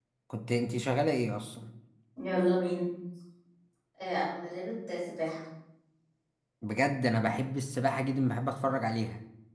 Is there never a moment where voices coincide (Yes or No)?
Yes